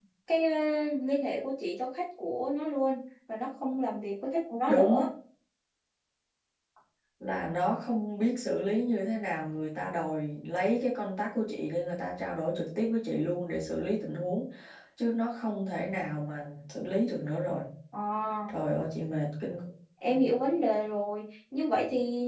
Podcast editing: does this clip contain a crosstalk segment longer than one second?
No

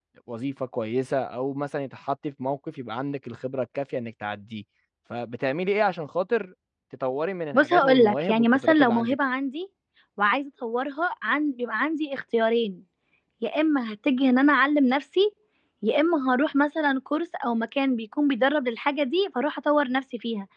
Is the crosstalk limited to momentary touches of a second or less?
No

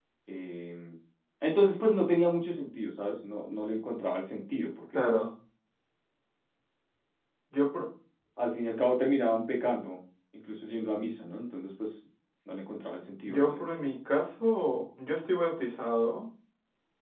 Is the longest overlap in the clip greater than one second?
No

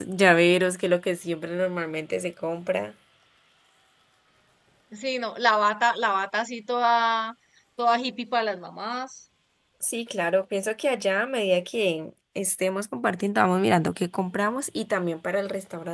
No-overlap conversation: Yes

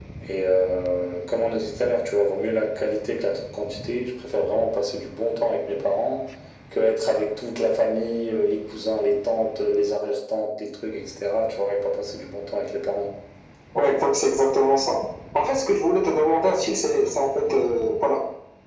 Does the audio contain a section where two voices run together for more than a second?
No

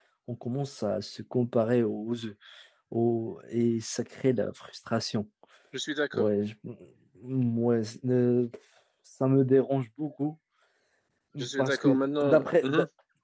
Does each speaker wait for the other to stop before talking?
No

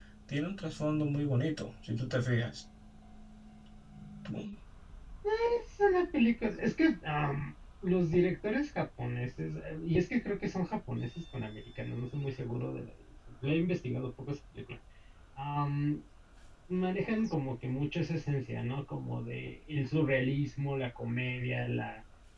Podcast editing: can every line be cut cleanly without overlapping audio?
Yes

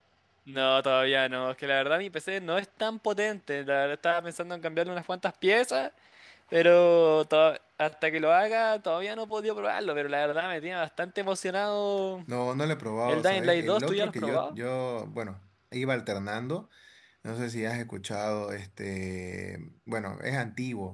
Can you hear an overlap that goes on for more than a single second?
Yes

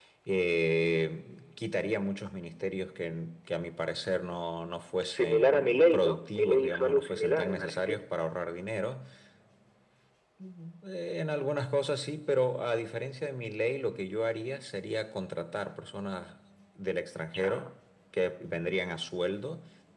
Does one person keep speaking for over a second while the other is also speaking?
Yes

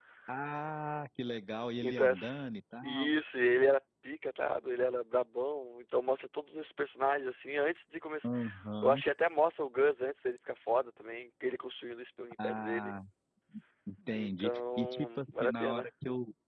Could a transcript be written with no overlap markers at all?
No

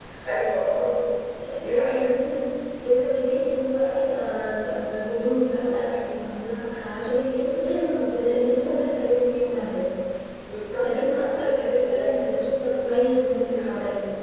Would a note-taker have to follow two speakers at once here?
Yes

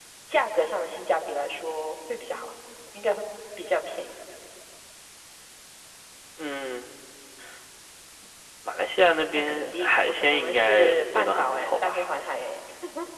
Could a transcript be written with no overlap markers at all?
No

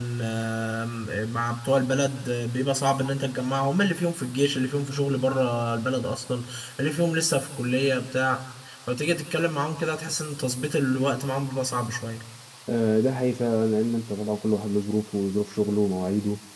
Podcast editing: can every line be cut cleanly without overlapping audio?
Yes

